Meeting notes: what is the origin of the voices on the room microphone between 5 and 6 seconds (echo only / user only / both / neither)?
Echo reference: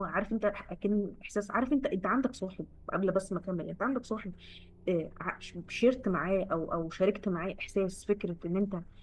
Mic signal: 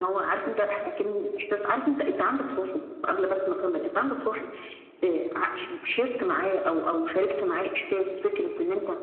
echo only